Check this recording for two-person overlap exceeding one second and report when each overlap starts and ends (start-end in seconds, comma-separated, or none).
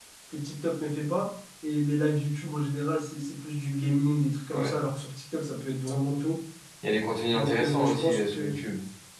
7.3-8.6